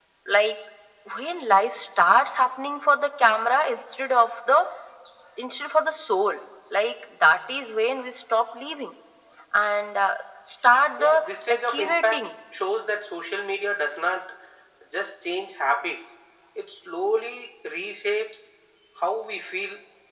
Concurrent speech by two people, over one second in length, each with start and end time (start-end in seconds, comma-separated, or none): 11.0-12.2